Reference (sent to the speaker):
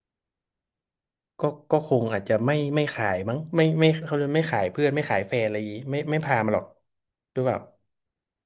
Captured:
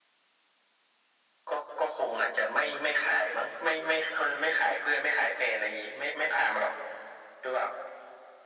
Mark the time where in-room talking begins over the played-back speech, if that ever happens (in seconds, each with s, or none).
none